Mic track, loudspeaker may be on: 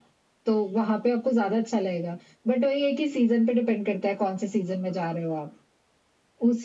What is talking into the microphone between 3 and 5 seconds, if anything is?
echo only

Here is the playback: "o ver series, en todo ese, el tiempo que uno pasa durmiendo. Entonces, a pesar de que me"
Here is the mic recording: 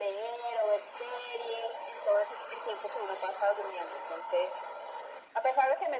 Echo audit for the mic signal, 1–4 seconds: echo only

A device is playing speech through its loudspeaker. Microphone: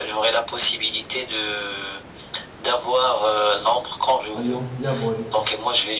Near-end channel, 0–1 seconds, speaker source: echo only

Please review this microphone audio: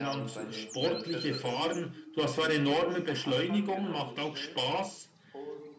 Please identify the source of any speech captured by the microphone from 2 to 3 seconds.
both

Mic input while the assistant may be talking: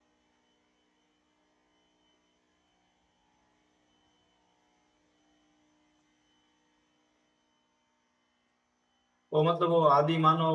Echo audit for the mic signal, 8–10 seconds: user only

